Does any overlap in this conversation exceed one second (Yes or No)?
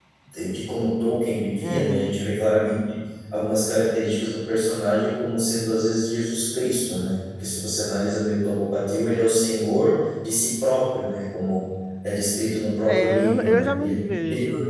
Yes